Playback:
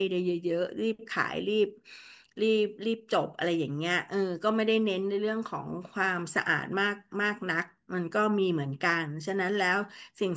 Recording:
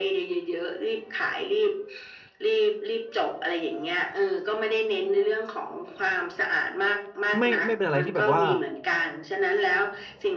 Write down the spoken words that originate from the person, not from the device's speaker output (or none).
ไม่ไม่เป็นอะไรที่แบบว่า